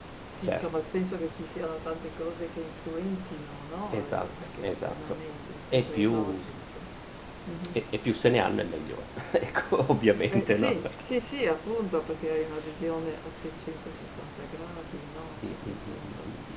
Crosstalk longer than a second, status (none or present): present